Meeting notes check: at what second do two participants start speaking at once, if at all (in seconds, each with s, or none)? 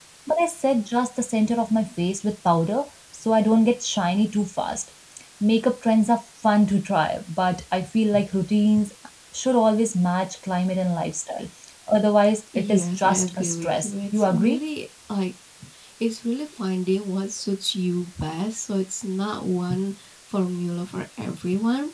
12.6 s